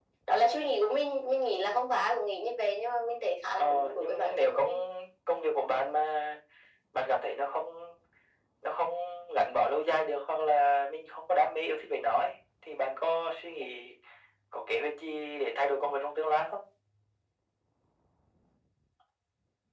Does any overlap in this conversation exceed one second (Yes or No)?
Yes